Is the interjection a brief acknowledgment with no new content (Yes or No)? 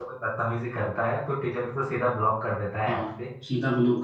No